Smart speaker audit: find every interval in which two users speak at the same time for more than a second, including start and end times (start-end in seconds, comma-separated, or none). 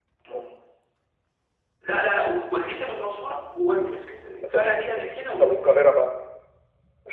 4.4-5.7